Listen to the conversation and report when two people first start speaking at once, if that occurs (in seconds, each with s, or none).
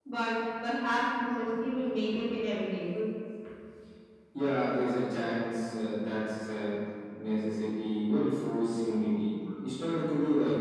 none